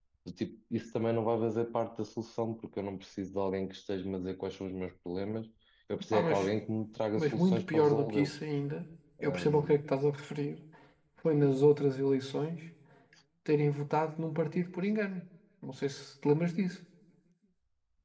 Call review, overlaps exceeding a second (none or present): present